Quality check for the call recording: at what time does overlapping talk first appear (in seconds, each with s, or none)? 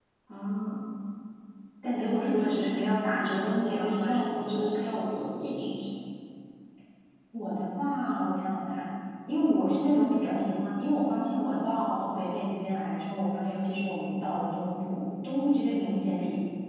2.0 s